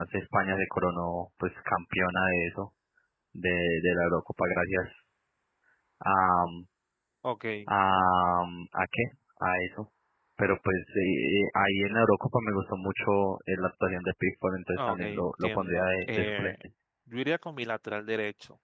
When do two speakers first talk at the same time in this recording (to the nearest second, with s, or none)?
15 s